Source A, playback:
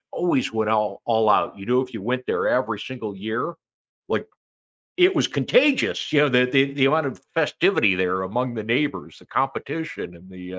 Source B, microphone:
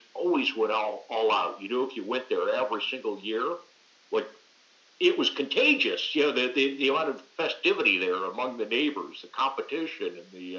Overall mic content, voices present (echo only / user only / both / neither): echo only